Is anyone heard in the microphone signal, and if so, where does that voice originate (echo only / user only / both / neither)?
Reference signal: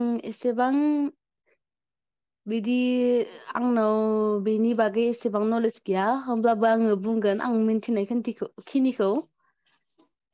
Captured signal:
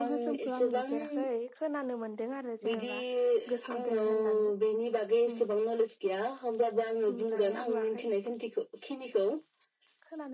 both